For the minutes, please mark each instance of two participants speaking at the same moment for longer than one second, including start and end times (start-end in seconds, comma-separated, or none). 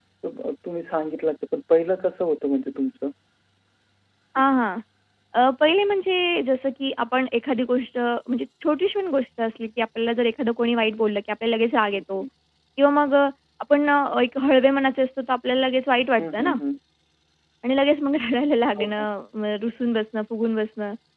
none